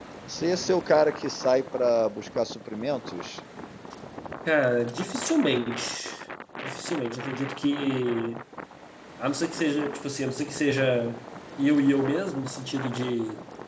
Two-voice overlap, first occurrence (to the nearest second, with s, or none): none